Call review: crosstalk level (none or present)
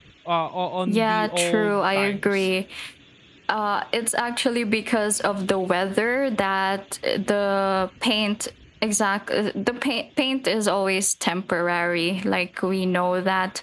present